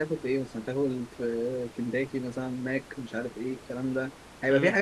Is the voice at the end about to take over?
No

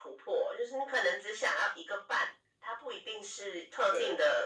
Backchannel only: Yes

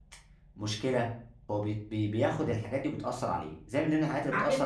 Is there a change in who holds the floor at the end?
No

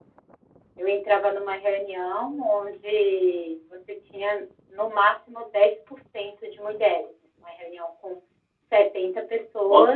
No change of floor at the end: No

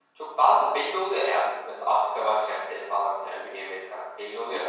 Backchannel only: No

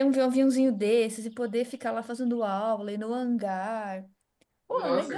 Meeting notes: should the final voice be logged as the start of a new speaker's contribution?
Yes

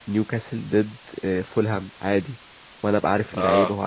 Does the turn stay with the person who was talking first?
No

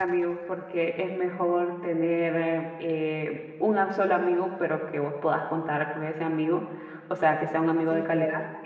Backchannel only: Yes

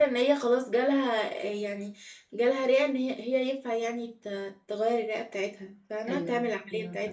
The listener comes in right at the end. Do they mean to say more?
Yes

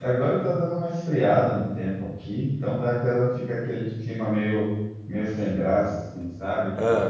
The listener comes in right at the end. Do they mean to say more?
No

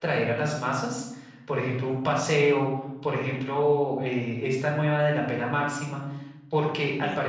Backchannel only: Yes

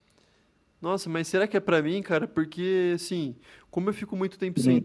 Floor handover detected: No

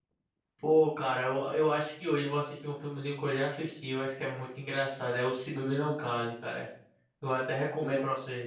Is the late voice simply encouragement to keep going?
Yes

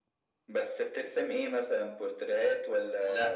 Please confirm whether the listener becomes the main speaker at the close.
Yes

